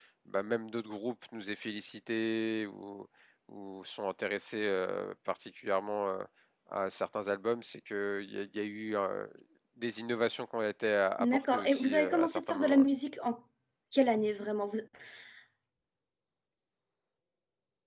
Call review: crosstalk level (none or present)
present